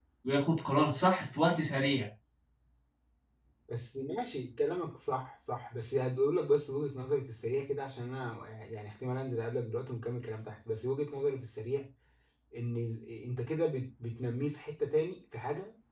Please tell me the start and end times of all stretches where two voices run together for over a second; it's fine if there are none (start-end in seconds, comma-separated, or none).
none